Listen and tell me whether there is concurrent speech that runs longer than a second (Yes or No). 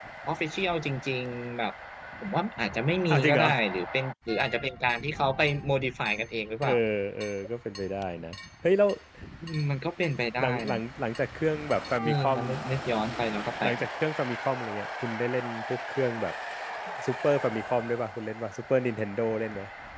No